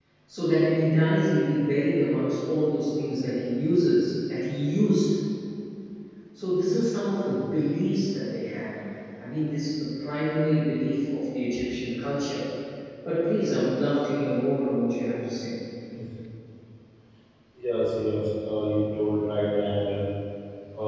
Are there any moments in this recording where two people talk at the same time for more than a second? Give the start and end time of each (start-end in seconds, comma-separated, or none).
none